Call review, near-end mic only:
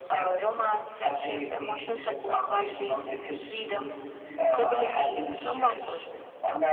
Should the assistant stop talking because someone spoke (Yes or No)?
Yes